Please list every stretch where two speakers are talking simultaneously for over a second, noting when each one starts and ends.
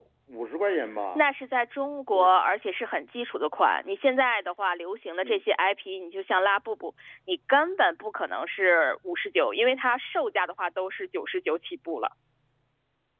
none

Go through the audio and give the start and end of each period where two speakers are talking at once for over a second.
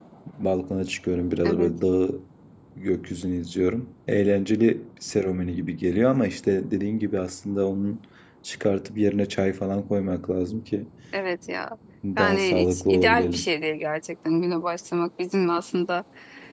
12.2-13.5

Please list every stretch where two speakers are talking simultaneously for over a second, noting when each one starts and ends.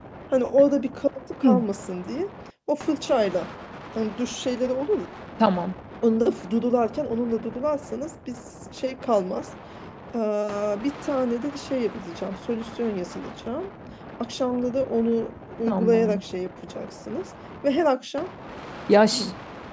none

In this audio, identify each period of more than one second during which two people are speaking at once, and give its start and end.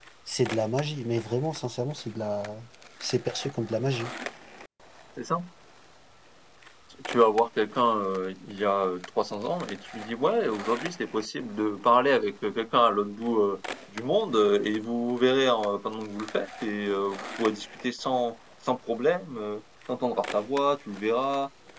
none

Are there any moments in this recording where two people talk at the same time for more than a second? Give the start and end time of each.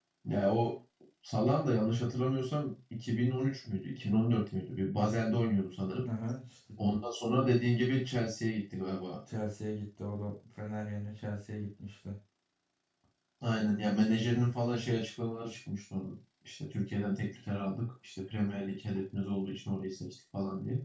none

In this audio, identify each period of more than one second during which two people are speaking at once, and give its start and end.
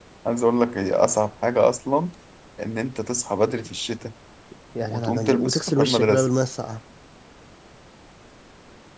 4.9-6.3

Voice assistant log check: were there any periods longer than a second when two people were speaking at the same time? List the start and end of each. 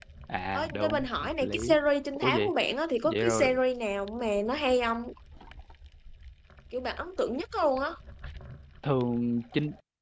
0.5-1.8

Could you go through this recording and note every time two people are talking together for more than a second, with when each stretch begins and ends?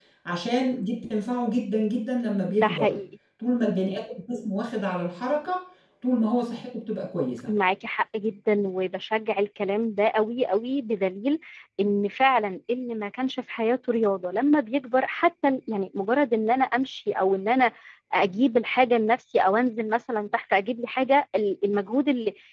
none

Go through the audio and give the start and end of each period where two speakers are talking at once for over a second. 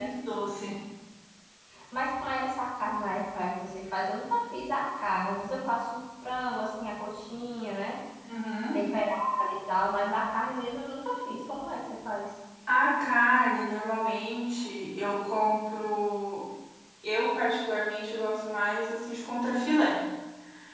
none

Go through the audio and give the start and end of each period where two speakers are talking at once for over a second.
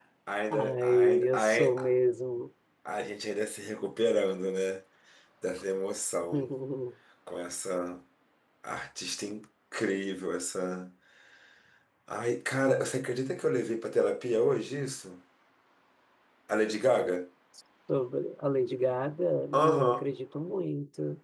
0.5-1.7

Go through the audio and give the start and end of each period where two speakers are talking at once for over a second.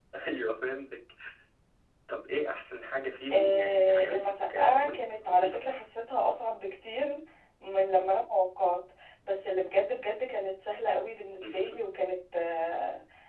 3.3-5.6

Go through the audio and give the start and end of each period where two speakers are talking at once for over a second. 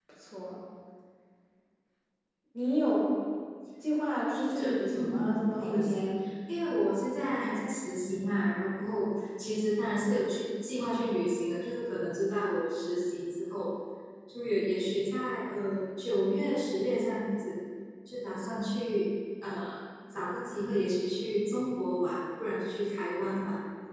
4.6-6.2

